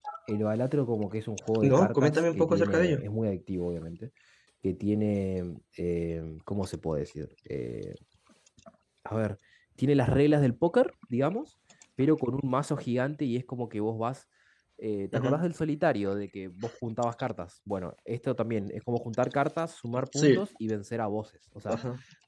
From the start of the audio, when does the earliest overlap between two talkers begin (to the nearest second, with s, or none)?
2 s